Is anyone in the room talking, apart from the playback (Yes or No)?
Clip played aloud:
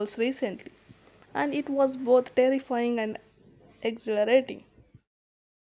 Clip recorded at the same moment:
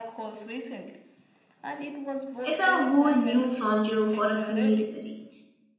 Yes